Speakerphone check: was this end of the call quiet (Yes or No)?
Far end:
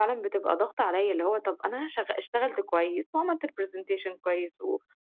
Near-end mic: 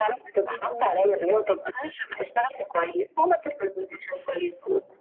No